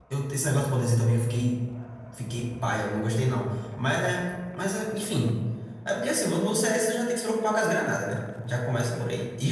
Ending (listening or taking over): listening